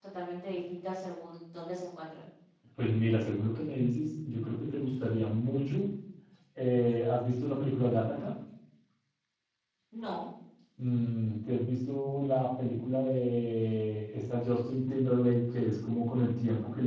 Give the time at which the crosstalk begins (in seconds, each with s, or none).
none